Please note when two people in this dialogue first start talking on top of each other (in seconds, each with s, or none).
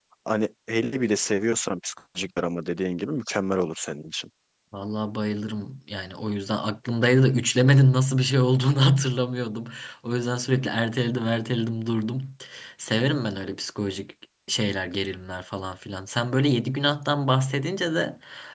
none